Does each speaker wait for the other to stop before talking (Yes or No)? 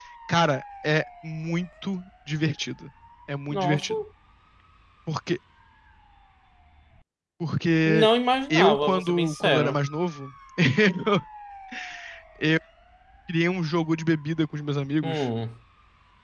No